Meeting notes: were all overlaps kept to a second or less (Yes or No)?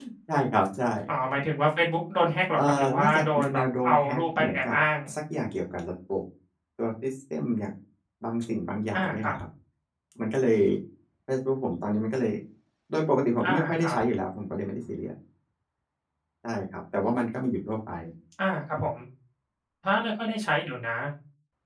No